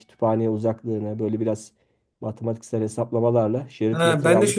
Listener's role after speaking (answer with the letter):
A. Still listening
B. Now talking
B